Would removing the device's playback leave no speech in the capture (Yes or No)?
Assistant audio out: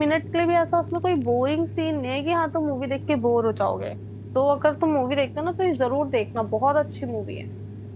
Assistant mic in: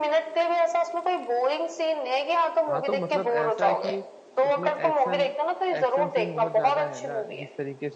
No